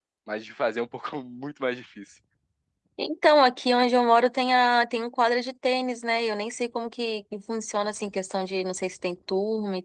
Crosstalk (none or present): none